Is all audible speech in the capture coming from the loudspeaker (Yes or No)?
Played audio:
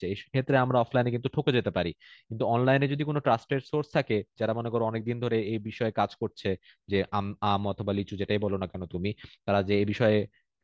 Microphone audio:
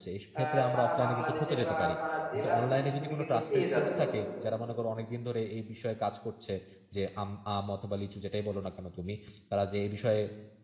No